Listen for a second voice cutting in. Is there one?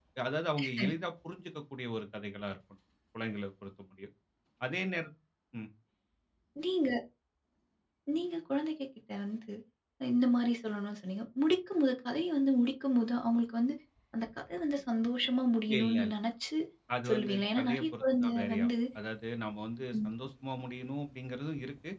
Yes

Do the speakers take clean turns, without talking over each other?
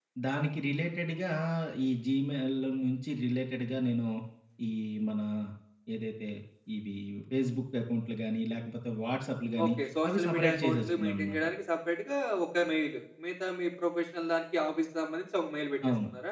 No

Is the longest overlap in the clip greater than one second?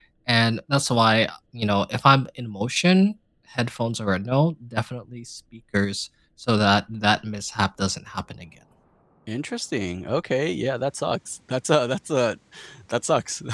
No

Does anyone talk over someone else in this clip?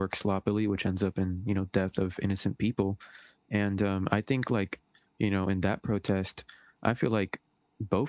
No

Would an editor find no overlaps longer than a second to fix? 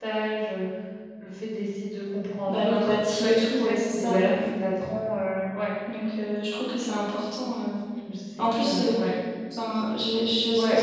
No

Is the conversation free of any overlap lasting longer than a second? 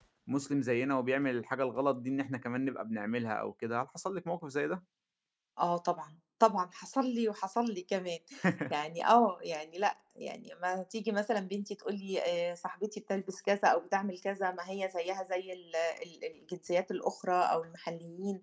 Yes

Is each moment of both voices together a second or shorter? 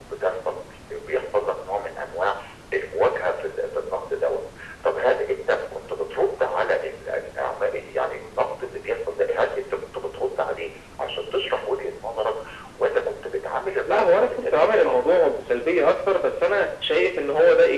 No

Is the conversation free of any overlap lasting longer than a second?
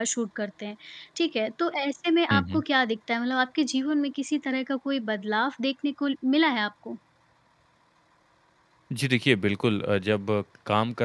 Yes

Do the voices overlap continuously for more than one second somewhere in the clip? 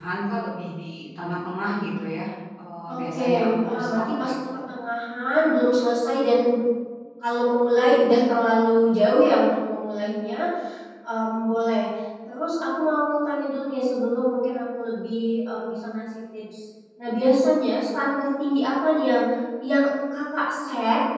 Yes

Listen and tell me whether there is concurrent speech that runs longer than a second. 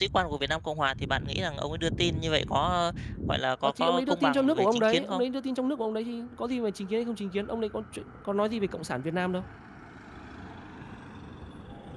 Yes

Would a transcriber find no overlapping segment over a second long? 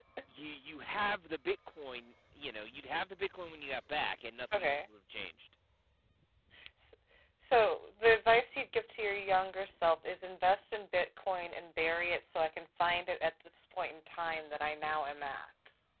Yes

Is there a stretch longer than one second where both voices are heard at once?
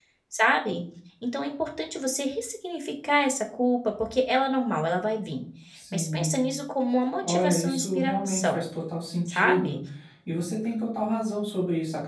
Yes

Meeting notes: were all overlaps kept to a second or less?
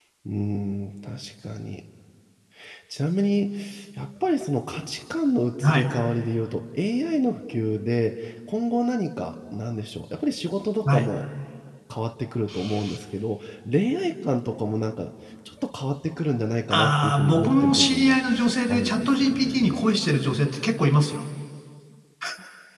No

